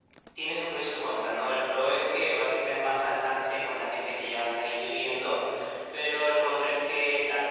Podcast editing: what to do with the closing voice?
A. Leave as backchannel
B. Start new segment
A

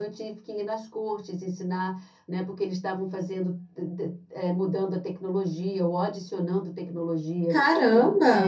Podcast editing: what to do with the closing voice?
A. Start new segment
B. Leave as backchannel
B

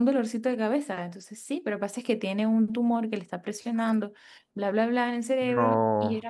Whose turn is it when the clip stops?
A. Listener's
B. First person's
B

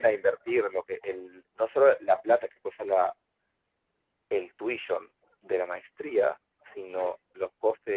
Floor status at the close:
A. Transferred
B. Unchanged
B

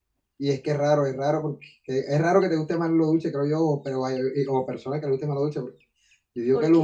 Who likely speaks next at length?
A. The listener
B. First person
B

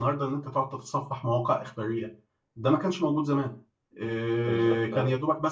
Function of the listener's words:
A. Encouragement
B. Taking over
A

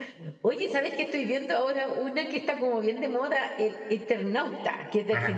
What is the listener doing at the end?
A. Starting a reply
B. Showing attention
A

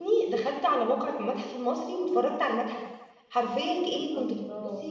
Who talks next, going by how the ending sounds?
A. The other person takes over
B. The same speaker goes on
B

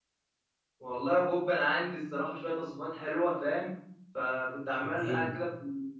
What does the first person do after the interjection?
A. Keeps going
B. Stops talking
A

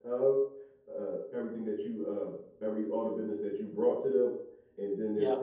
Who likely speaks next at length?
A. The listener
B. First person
B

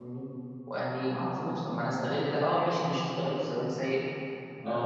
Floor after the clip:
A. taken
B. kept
B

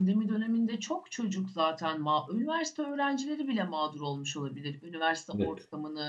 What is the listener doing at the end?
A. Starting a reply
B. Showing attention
B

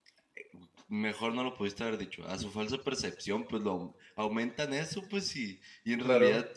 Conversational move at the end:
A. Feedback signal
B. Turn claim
A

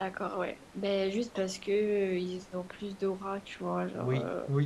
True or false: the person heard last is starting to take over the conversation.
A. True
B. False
A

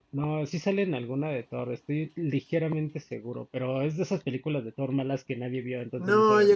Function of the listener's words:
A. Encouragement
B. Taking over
B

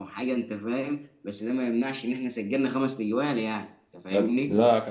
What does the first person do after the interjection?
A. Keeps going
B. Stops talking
B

